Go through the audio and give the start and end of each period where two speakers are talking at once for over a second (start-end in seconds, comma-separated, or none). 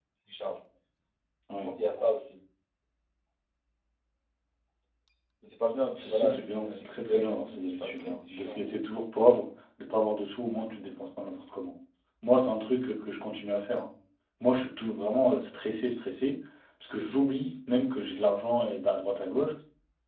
6.0-8.6